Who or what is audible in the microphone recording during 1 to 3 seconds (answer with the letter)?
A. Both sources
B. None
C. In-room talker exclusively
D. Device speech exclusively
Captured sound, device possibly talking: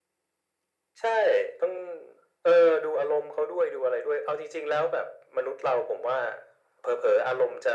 D